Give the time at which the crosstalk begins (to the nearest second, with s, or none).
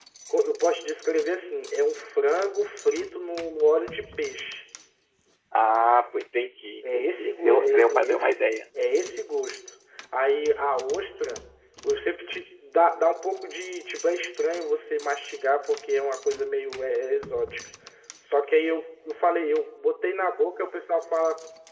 7 s